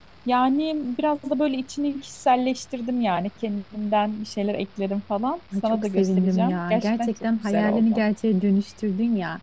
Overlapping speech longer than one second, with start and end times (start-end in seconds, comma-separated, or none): 5.6-8.0